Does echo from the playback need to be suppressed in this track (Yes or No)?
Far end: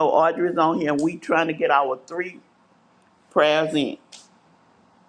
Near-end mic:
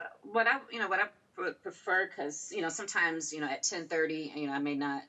No